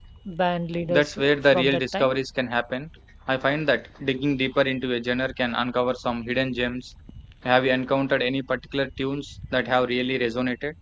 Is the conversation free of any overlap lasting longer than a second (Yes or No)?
No